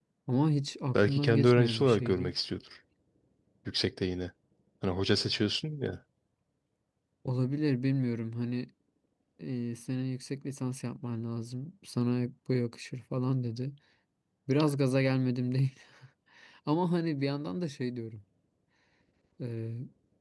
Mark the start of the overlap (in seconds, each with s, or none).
0.9 s